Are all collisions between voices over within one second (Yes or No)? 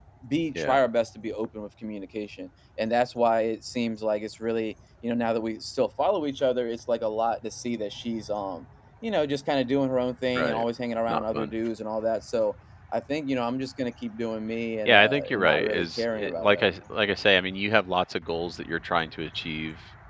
No